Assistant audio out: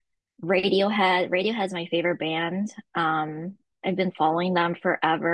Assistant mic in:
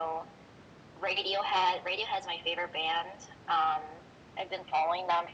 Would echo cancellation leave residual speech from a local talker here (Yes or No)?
No